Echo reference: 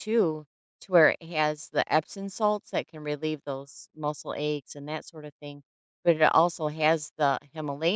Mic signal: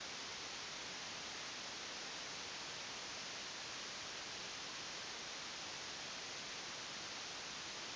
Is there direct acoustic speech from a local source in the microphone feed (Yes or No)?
No